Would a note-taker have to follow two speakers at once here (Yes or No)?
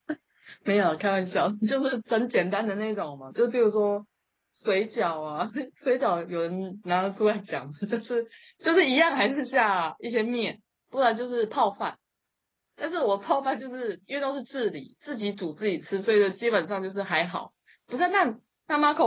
No